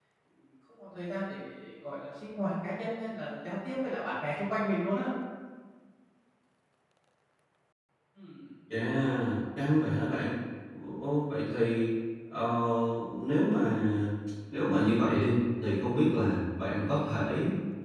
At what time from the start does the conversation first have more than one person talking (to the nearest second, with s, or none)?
none